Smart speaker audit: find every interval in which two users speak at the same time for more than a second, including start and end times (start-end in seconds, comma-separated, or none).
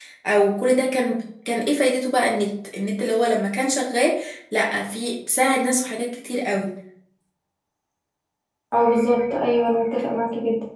none